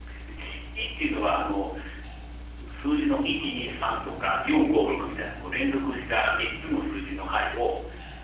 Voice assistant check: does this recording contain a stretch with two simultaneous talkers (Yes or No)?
No